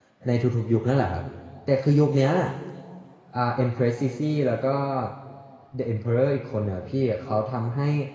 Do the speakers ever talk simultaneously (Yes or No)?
No